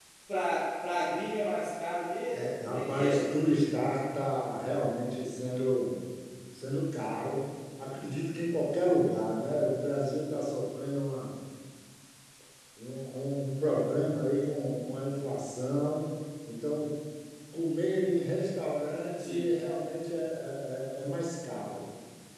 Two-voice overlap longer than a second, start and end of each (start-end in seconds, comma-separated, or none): 2.3-3.8